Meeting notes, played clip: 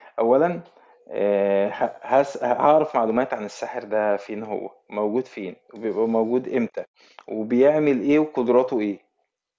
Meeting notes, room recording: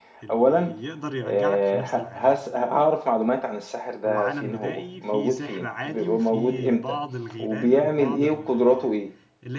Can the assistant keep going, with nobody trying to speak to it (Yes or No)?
No